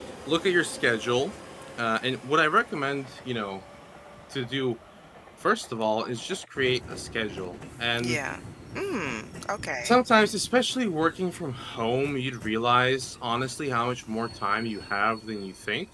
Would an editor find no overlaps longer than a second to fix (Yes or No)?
Yes